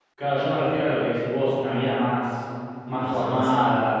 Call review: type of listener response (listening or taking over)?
listening